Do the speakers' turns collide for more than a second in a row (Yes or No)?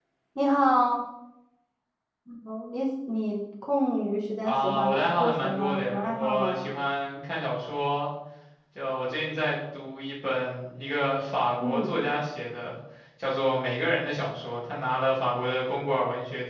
Yes